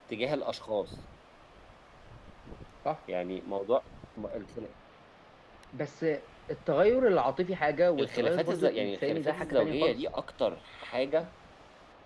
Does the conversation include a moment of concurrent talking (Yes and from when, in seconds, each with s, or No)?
Yes, from 8.0 s